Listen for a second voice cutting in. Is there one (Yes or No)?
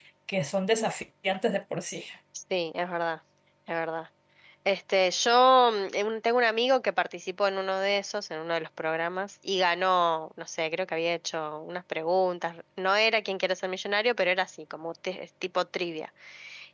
No